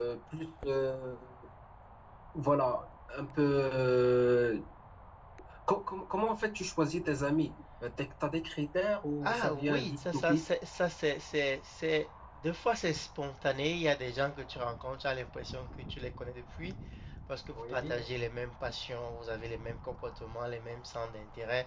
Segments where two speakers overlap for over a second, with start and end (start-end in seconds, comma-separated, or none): 9.2-10.4